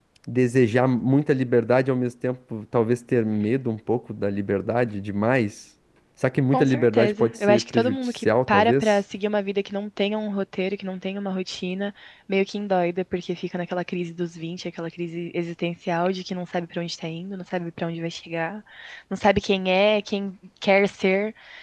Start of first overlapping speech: 6.5 s

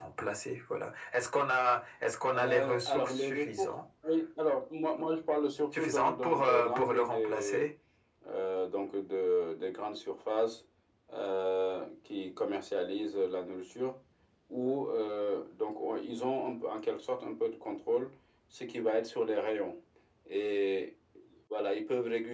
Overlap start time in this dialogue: 2.2 s

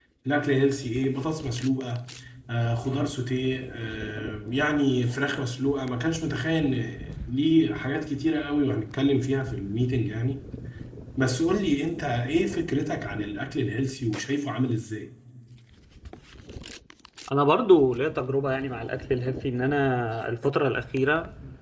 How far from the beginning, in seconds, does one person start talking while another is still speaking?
none

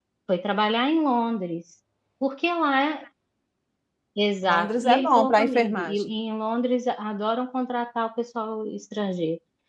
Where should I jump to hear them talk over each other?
4.4 s

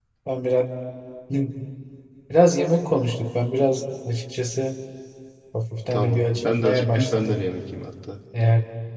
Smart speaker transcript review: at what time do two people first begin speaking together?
5.9 s

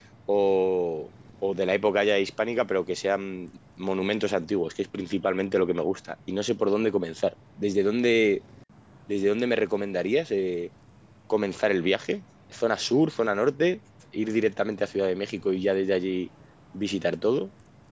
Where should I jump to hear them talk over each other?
none

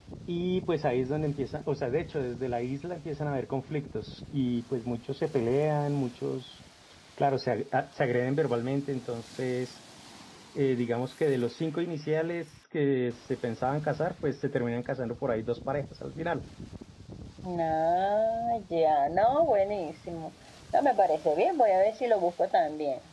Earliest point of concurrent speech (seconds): none

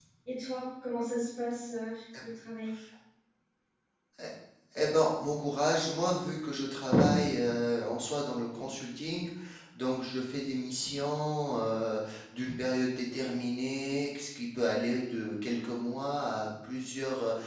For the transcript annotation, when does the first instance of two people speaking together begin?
none

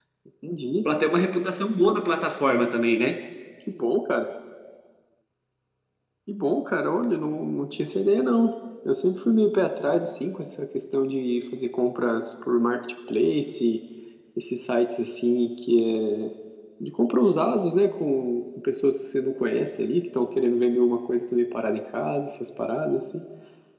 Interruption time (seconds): none

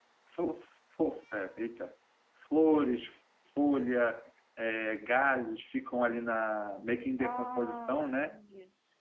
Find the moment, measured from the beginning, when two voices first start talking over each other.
7.2 s

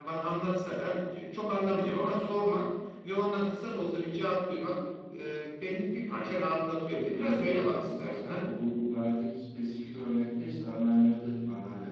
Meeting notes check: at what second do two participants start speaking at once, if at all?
6.9 s

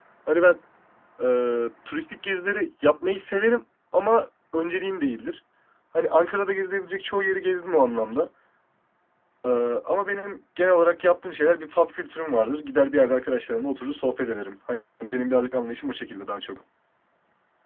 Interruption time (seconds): none

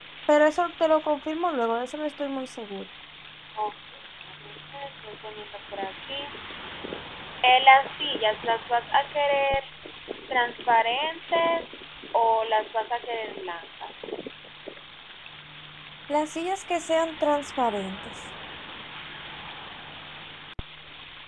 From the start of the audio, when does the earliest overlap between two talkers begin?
none

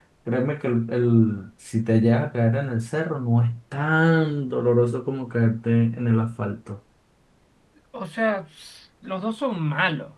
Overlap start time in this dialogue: none

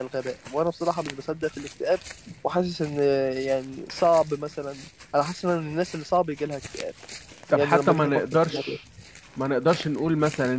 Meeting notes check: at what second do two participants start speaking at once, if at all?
7.5 s

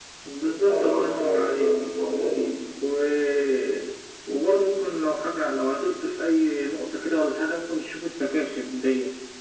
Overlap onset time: 0.5 s

